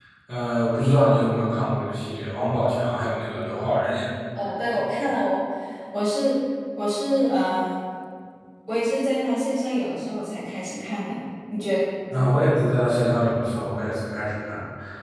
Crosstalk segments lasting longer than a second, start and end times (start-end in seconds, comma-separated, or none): none